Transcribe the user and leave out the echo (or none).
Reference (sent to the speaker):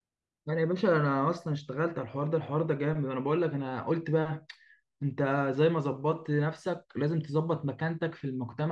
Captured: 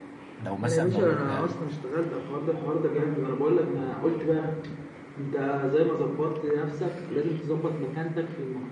لو مثلا لو انت